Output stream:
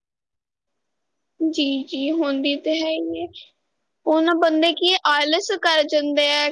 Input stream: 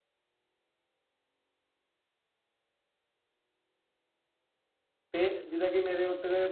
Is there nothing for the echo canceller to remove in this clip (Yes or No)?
Yes